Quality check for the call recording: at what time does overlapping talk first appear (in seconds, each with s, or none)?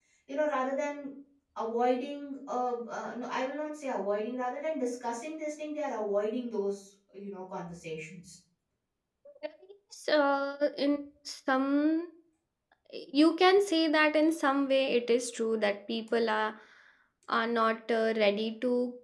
none